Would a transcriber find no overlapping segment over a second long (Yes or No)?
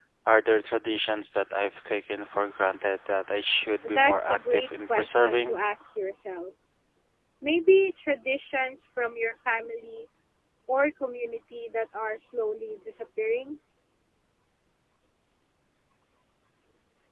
No